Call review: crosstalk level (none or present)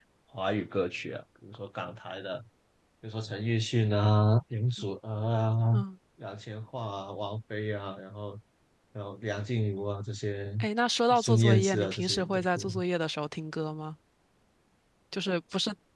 present